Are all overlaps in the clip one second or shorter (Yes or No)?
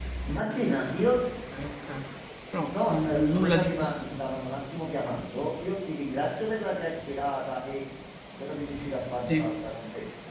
No